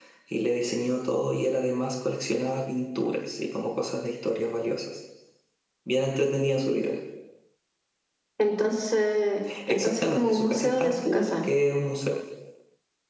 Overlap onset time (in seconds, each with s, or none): 9.5 s